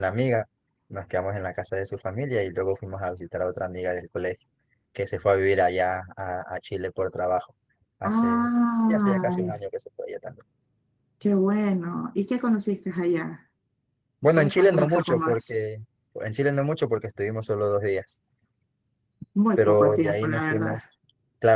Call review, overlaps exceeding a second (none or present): present